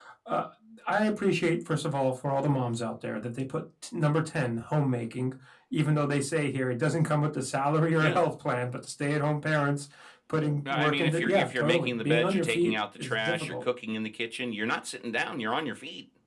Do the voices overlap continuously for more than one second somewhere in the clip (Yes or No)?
Yes